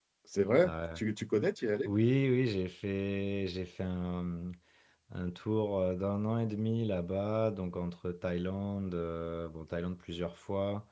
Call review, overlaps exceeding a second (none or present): none